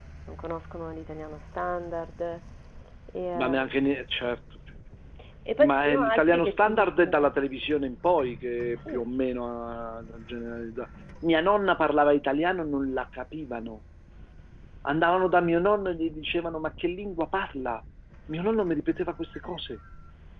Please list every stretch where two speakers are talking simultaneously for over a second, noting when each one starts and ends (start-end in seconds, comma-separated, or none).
5.6-7.3